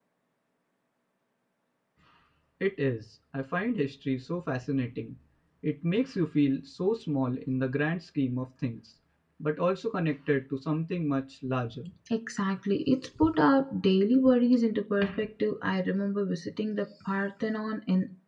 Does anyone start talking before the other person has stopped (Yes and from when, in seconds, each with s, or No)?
No